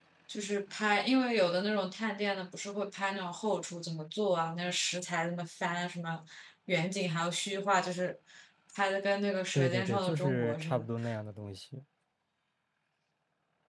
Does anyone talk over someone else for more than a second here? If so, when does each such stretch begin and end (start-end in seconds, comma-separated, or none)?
9.5-10.9